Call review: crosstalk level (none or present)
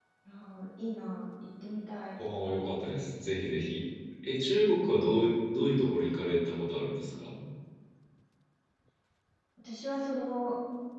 none